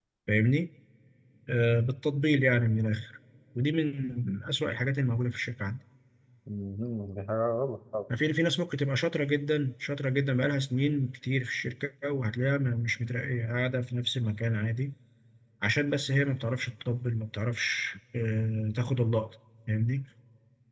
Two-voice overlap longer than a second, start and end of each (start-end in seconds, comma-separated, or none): none